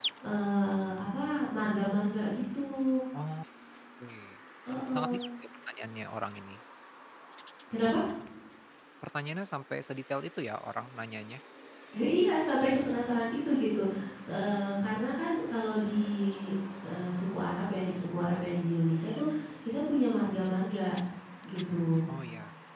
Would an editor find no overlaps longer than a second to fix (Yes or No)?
Yes